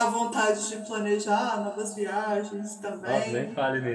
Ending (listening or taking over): taking over